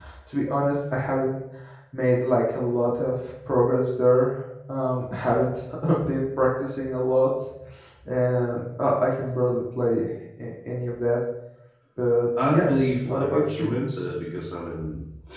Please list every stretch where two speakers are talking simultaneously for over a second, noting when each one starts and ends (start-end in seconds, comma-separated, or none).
12.5-13.8